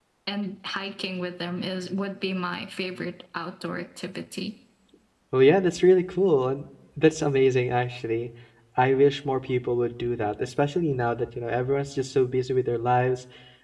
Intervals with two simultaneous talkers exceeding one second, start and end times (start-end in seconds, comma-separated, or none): none